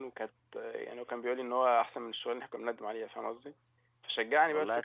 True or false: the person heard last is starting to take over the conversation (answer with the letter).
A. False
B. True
A